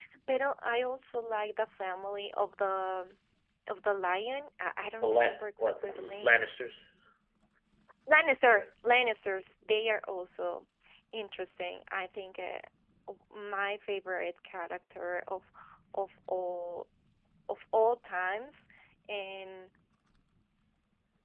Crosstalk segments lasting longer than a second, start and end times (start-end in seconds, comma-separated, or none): 5.0-6.4